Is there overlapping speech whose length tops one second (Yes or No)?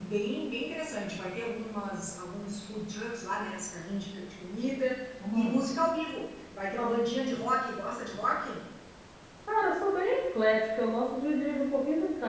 No